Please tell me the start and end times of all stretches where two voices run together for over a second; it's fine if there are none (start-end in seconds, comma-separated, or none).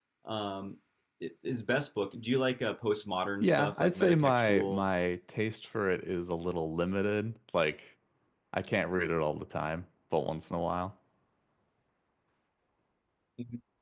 3.4-4.8